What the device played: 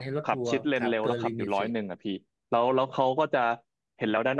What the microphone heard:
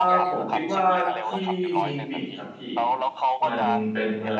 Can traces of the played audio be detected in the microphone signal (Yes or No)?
Yes